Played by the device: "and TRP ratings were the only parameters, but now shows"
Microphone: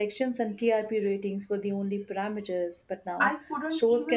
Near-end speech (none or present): present